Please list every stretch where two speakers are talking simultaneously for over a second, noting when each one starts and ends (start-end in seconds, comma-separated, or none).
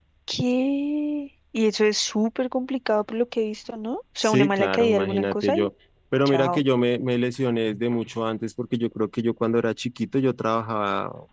4.2-5.7